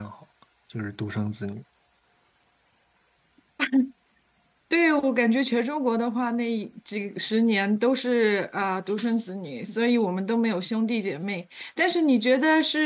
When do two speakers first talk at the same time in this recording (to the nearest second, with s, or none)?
none